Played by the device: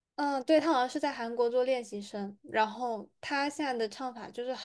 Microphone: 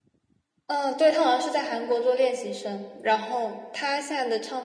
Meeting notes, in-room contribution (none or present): none